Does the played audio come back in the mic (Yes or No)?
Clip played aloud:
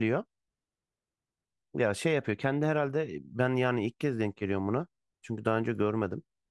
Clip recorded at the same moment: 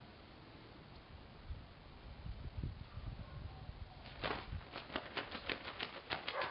No